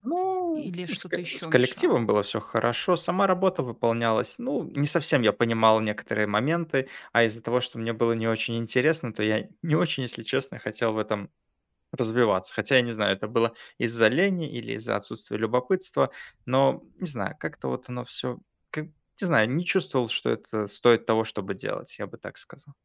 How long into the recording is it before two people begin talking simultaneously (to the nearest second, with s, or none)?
1 s